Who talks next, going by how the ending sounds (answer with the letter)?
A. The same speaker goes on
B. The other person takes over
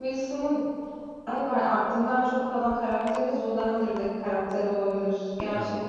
B